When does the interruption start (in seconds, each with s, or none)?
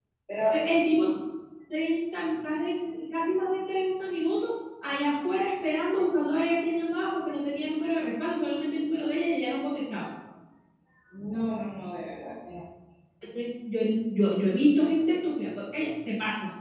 none